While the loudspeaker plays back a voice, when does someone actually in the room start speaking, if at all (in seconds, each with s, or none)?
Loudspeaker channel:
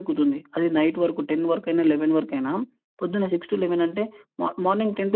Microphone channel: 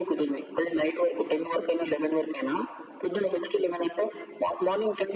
none